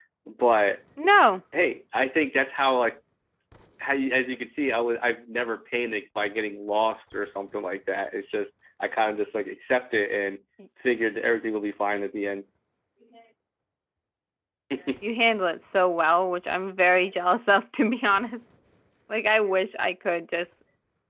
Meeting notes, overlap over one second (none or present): none